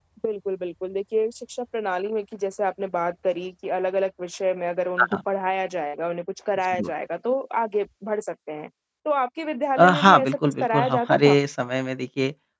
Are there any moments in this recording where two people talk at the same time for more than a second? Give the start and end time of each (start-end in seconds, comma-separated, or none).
9.8-11.4